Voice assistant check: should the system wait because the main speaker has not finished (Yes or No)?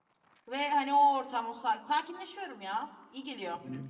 No